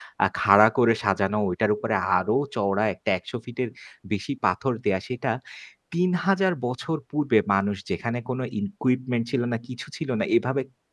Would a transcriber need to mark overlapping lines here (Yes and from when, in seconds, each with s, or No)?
No